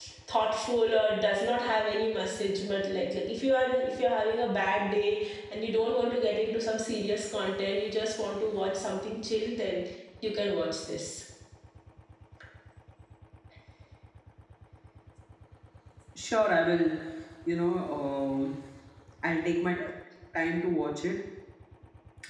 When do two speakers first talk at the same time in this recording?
none

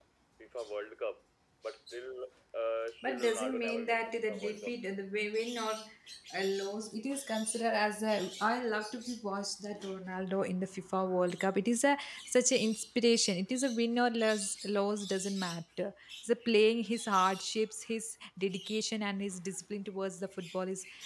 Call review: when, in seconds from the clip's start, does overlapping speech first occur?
3 s

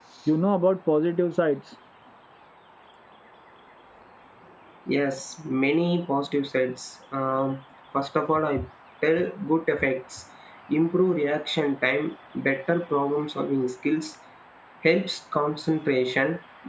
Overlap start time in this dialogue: none

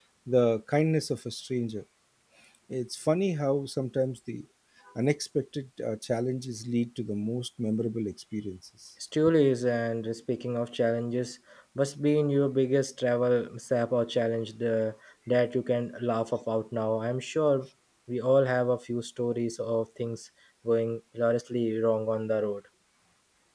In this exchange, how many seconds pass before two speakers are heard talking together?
none

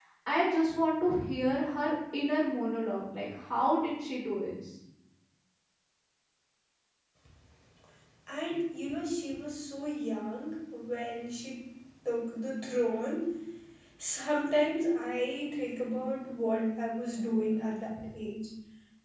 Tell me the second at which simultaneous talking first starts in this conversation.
none

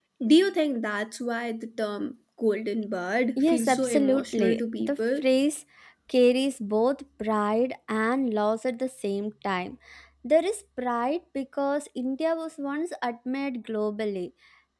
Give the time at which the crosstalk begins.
3 s

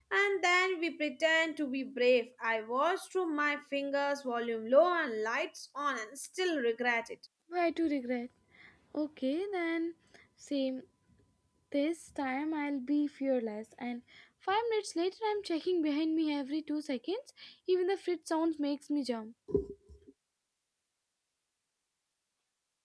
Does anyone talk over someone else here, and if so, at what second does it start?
none

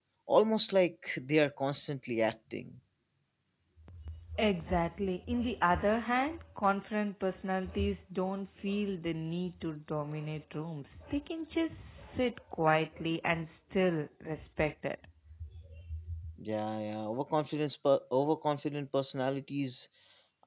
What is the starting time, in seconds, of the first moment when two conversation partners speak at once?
none

